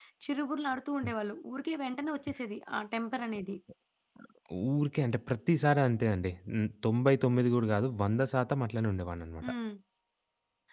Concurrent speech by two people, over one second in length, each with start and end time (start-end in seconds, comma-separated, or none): none